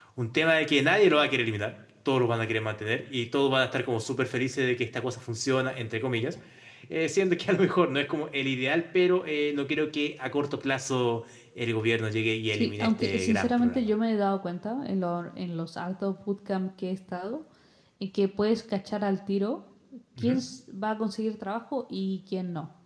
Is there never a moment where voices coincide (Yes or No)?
No